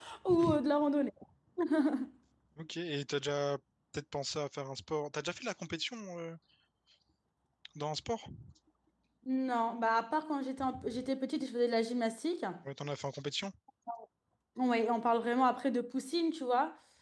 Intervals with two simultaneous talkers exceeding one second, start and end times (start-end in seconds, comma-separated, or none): none